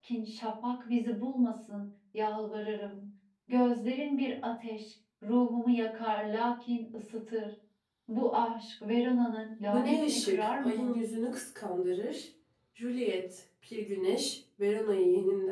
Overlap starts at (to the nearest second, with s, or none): 10 s